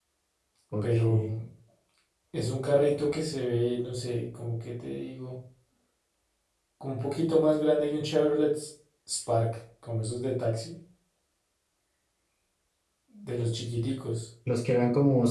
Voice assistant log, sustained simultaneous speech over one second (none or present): none